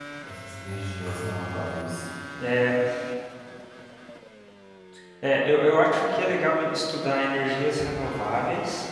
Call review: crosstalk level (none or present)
none